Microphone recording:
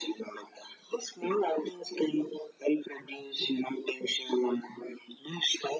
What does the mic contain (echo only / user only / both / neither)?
echo only